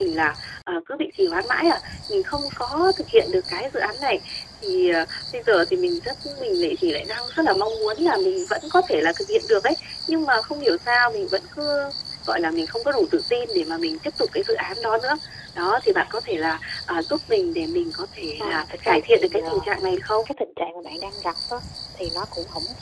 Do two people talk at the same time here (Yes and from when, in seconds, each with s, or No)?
Yes, from 18.4 s